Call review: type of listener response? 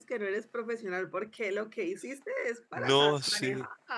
taking over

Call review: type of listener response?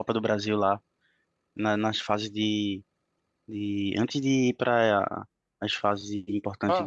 taking over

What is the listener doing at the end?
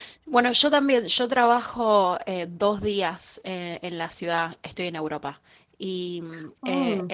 listening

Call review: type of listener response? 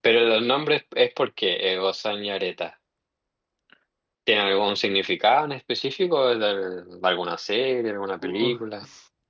taking over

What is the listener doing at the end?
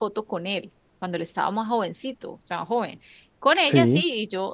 listening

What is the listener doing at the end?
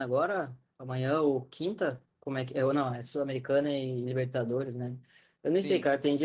listening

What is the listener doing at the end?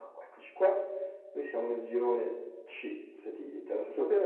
taking over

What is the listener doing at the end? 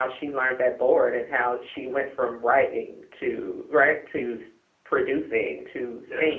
listening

